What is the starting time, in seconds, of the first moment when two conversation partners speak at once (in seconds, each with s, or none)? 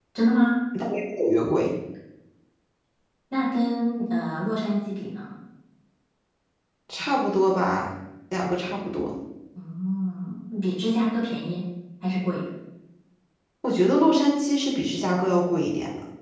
none